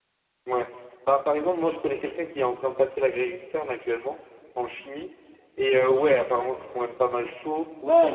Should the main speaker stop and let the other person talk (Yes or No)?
Yes